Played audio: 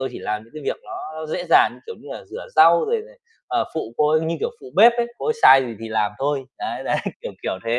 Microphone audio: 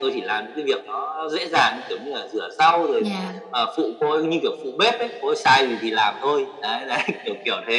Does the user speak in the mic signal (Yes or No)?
Yes